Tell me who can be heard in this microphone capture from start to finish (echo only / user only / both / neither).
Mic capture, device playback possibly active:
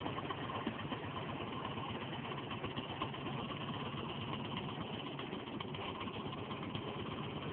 neither